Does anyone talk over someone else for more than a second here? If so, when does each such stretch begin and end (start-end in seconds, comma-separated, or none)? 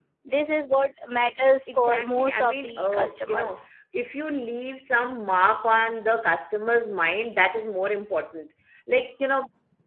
1.8-3.6